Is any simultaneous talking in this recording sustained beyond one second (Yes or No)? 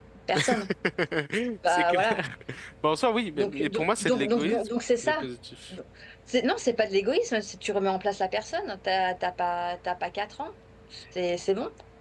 Yes